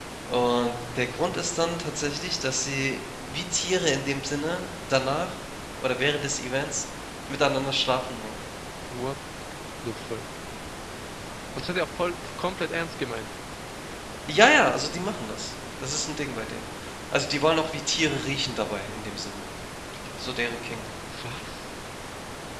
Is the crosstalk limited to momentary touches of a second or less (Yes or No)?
Yes